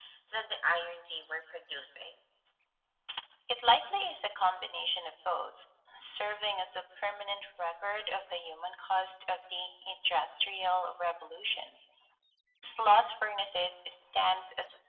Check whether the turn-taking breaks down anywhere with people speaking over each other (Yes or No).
No